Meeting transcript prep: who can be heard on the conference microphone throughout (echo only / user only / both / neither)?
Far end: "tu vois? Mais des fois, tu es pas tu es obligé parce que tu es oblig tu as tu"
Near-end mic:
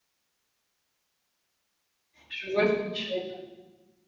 user only